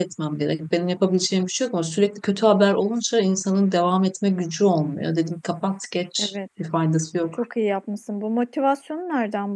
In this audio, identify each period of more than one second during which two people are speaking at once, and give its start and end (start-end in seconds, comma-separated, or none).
none